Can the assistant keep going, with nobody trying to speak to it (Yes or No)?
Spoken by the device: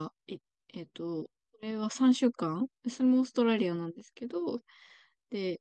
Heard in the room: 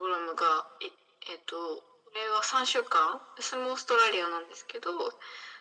Yes